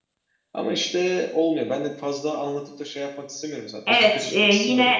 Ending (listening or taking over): taking over